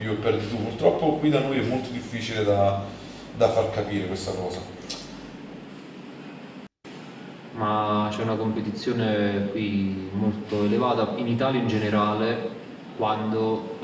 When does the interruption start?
none

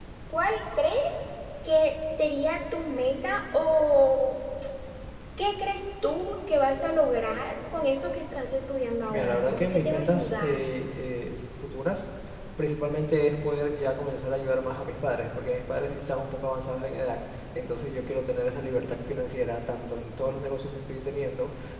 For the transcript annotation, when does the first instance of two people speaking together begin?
9 s

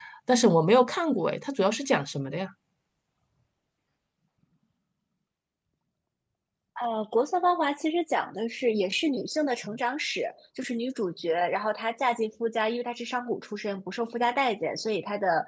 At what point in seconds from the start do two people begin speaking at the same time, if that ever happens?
none

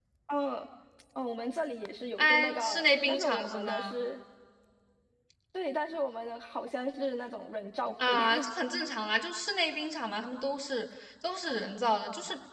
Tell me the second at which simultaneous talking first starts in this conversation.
2 s

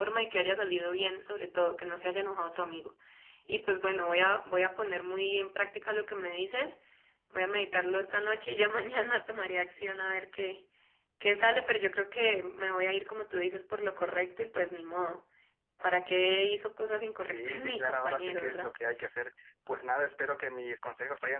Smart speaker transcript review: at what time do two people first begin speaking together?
17 s

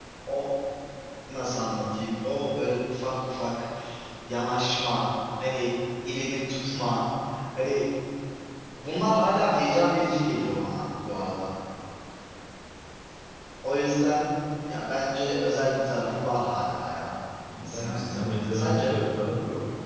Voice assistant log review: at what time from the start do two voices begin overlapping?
18 s

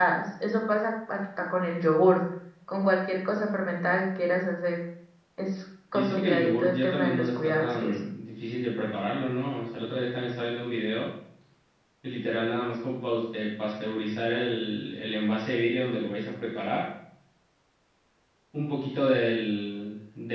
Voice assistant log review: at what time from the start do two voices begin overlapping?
6 s

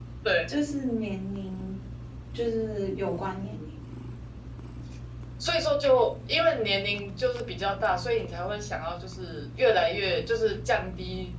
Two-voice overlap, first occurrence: none

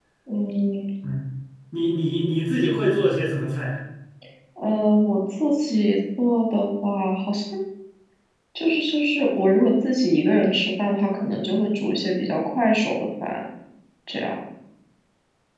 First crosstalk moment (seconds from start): none

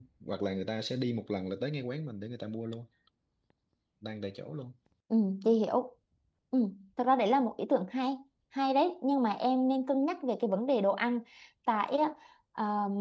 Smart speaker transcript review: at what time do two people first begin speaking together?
none

